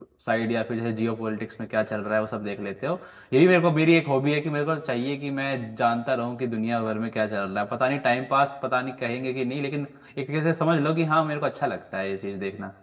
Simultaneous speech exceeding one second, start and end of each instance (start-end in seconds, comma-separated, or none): none